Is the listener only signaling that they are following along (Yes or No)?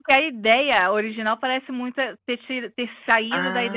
No